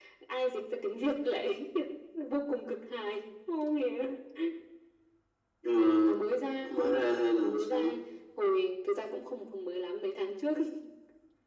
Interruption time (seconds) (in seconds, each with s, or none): 6.6 s